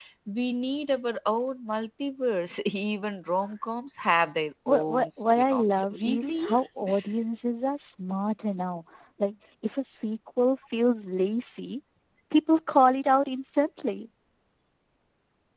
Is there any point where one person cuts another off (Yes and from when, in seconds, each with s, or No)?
Yes, from 4.7 s